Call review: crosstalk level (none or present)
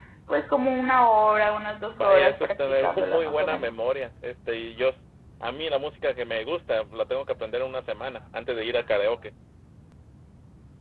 present